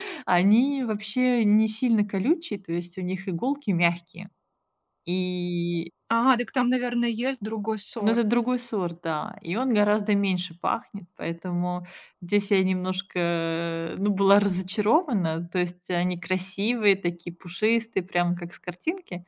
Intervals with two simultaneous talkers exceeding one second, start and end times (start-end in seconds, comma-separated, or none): none